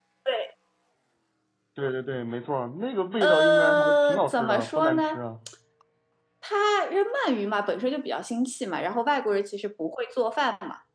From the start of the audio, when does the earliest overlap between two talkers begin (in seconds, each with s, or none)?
3.2 s